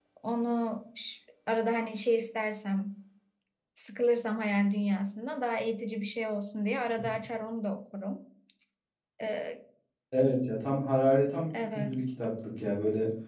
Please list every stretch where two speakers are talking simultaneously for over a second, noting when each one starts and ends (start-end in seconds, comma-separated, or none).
none